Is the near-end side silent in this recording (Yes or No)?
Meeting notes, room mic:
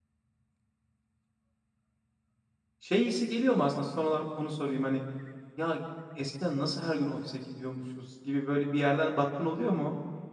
No